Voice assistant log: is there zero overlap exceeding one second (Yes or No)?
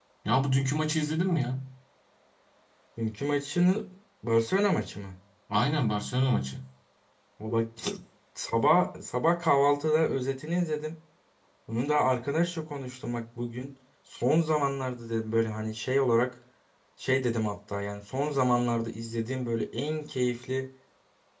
Yes